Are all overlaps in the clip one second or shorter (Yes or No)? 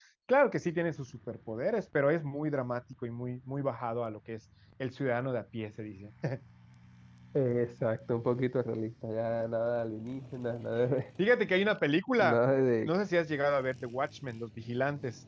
Yes